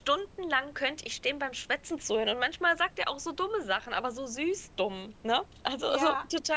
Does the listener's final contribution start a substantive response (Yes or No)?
Yes